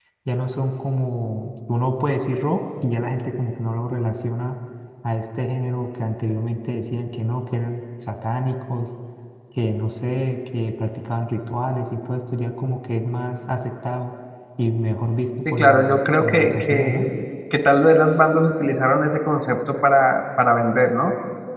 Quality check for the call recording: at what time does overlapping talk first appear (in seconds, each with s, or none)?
15.4 s